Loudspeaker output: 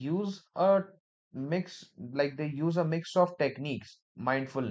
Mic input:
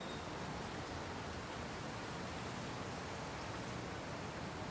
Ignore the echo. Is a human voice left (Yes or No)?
No